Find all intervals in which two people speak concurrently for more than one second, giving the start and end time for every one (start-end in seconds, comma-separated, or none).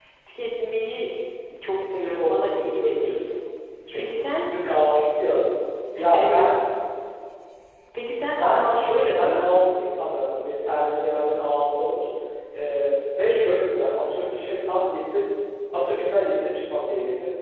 2.0-3.3, 8.4-9.7